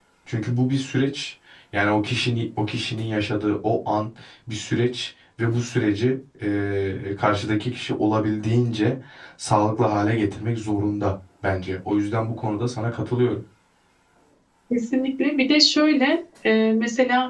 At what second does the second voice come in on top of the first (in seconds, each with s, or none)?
none